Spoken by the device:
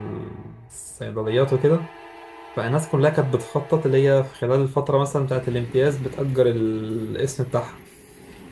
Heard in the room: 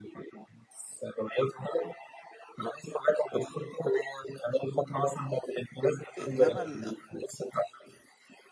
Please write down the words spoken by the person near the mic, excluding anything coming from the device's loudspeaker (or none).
انما ال...